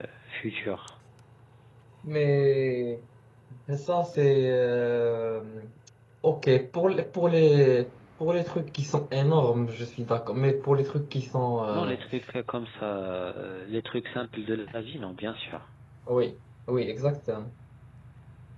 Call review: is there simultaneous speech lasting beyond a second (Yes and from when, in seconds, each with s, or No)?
No